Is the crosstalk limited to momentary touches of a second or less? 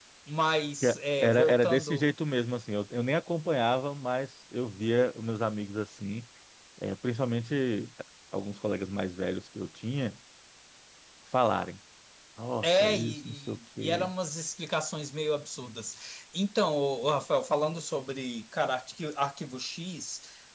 No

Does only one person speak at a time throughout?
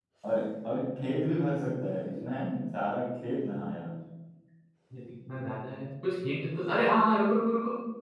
Yes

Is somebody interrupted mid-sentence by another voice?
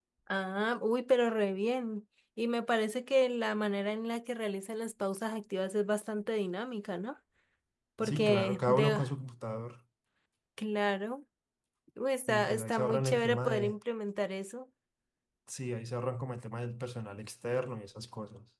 Yes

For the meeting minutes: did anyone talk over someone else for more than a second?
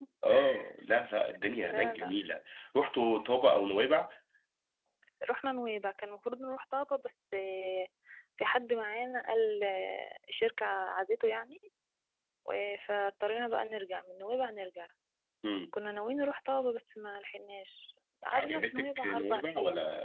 Yes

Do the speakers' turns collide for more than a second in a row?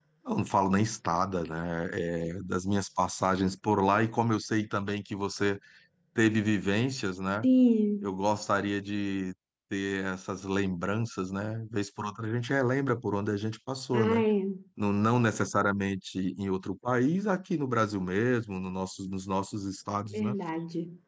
No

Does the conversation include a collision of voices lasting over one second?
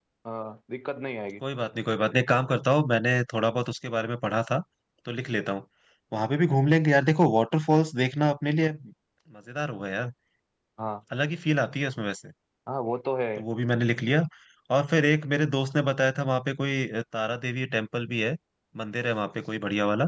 No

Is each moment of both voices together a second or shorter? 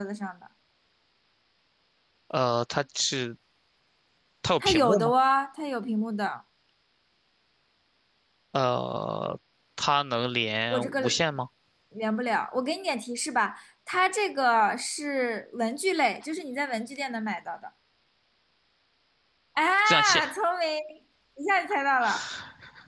Yes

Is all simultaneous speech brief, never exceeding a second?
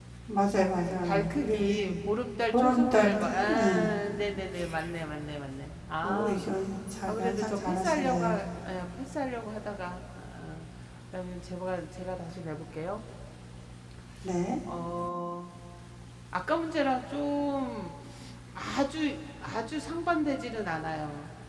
No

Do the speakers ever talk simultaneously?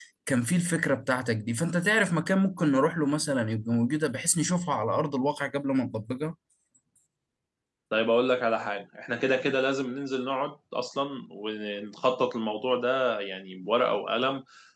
No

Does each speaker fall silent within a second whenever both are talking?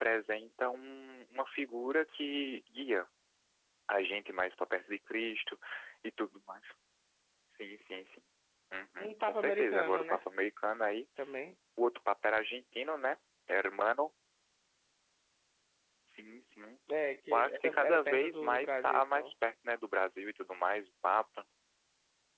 No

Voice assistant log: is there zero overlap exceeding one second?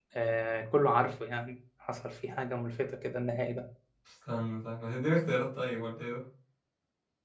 Yes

